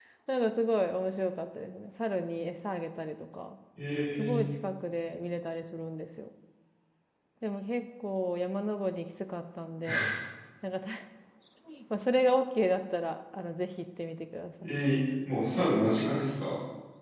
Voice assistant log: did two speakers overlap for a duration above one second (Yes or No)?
No